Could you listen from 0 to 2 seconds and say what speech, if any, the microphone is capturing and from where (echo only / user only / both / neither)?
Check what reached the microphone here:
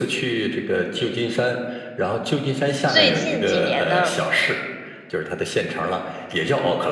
echo only